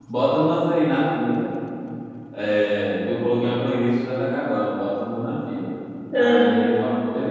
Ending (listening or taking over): listening